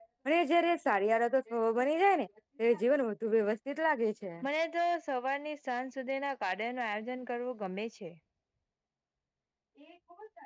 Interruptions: none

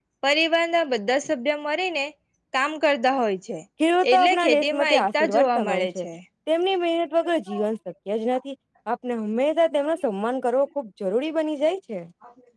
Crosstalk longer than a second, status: present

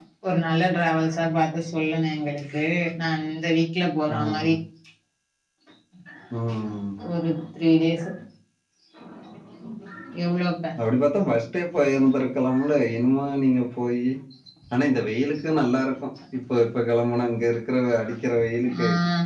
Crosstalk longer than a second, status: none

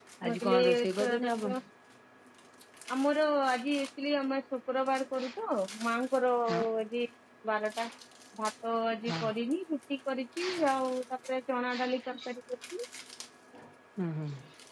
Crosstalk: present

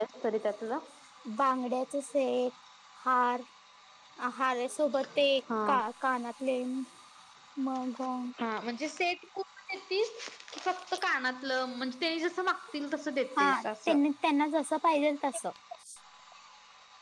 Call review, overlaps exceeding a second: none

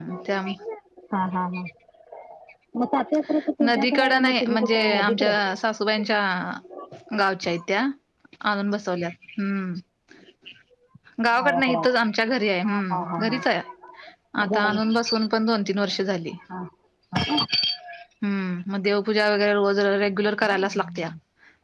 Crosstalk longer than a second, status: present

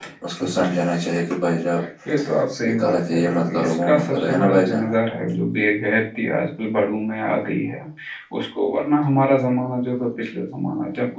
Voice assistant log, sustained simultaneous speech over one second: present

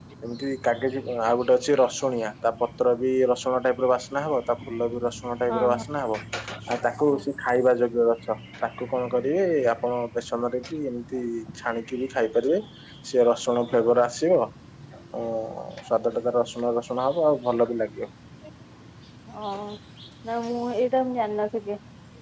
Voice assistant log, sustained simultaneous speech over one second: none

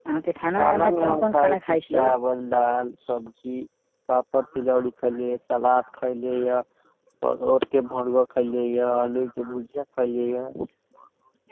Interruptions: present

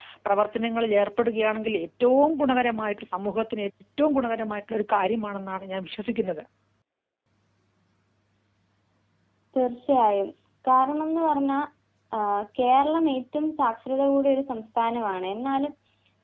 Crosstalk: none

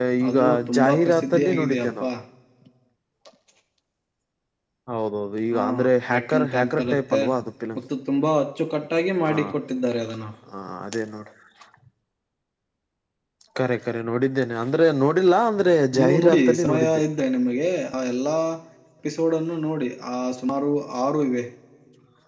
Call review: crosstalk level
present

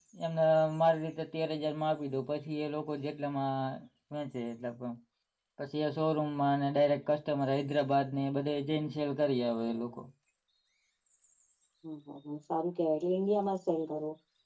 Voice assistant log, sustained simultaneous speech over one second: none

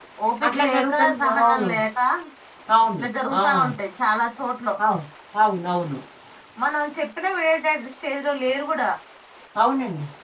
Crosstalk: present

